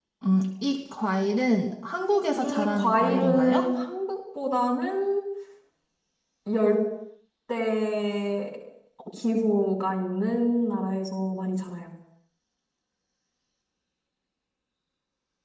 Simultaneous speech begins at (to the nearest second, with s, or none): 2 s